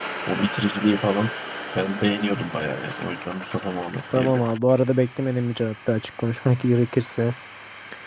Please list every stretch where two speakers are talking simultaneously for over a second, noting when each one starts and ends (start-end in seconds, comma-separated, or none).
none